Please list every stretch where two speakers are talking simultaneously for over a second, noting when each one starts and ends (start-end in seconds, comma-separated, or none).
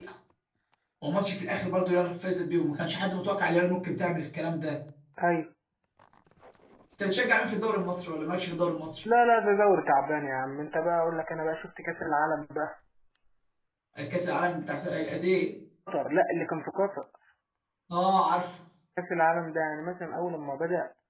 none